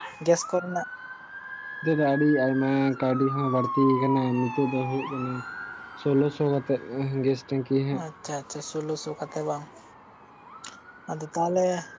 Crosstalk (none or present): none